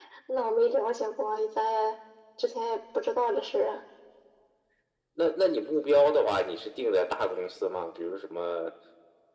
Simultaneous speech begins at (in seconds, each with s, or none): none